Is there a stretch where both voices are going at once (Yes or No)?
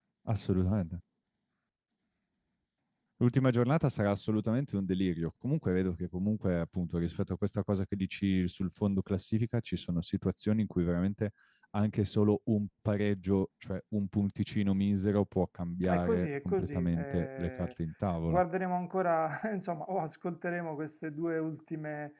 Yes